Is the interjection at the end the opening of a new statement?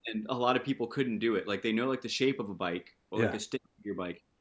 No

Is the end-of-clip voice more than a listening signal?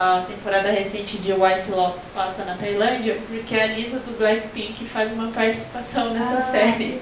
Yes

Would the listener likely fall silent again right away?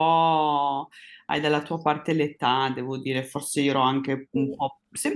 Yes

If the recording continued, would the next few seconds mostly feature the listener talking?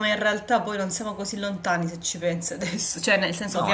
Yes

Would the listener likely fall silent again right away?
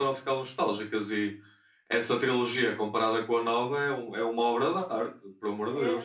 No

